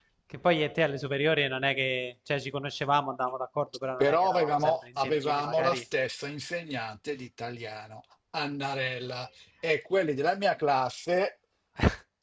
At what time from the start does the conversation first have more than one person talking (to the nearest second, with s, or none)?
4 s